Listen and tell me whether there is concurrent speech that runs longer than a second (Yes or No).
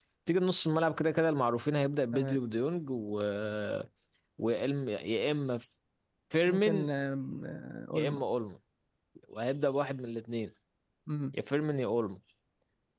No